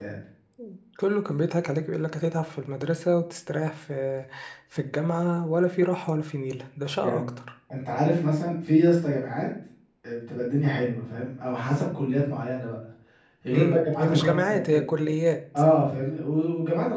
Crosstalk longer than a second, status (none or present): present